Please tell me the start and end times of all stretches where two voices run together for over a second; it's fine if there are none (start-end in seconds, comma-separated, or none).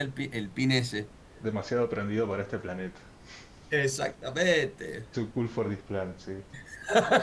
none